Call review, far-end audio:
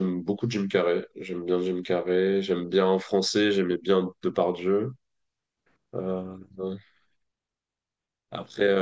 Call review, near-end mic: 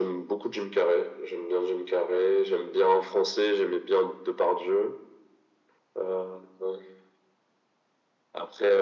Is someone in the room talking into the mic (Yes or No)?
No